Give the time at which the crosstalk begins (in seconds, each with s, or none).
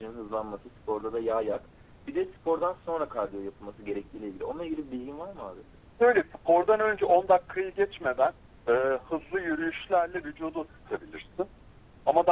none